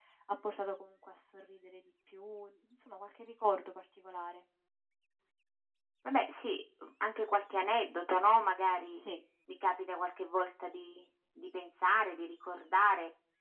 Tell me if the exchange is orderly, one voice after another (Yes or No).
Yes